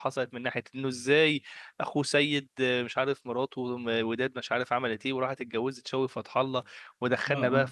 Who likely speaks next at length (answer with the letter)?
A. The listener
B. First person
B